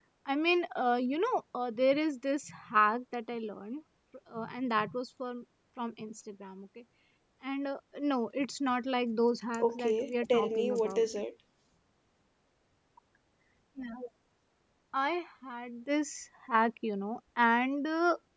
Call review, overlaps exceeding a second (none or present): present